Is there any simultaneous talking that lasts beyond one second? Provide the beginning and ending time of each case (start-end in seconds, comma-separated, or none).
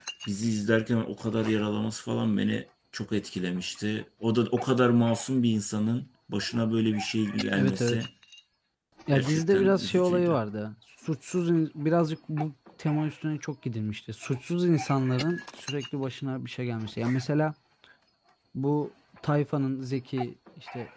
9.1-10.4